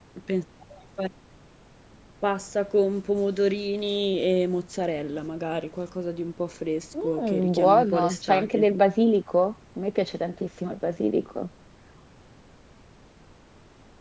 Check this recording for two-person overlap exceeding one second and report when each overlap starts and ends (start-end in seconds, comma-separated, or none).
7.0-8.6